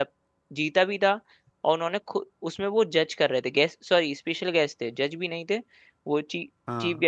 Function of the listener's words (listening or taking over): listening